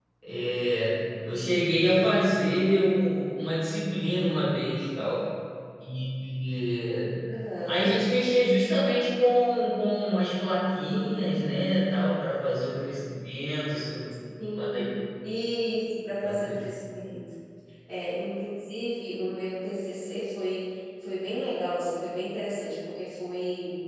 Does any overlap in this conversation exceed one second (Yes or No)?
No